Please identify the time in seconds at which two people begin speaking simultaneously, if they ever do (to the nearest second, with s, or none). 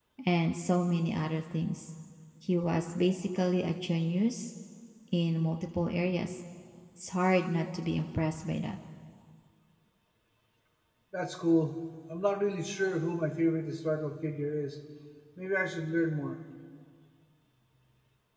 none